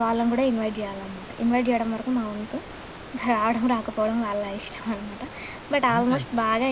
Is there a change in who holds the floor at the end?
No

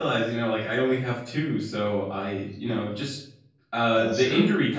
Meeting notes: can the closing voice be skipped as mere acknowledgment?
Yes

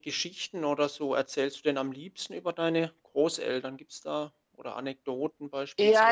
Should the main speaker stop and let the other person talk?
Yes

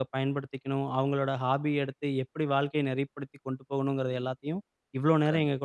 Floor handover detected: No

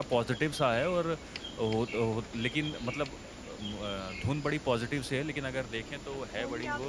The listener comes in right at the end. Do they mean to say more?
Yes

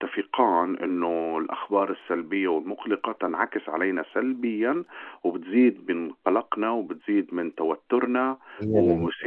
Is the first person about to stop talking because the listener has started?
No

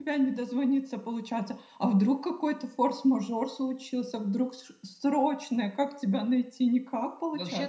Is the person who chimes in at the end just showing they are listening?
No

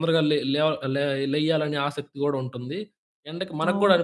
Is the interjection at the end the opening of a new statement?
No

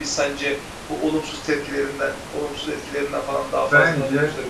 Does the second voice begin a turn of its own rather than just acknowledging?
Yes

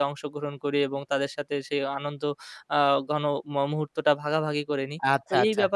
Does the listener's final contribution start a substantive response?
Yes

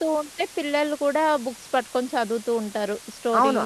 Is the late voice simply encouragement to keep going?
No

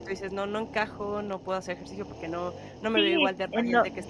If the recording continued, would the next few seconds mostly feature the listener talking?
Yes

